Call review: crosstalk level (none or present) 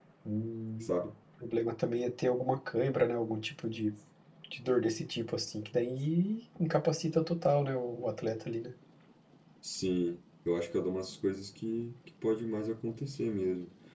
none